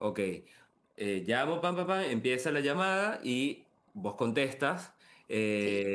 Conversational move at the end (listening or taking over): listening